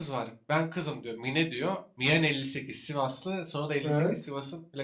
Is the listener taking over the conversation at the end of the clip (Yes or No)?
No